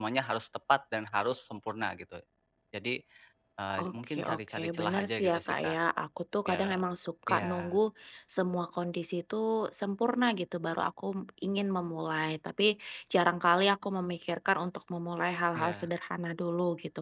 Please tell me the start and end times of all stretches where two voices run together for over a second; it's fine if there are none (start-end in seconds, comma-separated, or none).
3.8-5.8